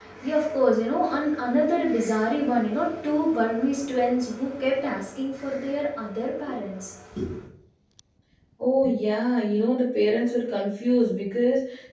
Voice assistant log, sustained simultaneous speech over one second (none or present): none